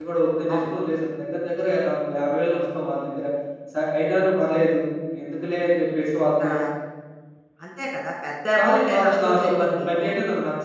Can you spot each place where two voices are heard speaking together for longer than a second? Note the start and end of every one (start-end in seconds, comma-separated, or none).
8.6-10.1